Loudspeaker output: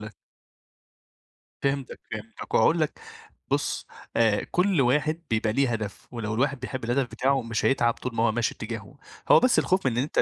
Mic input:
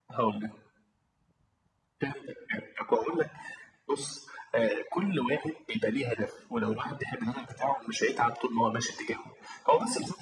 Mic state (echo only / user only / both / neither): echo only